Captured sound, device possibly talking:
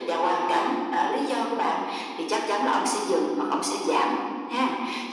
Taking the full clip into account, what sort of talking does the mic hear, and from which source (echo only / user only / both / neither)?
echo only